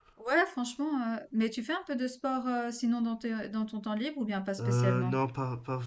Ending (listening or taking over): taking over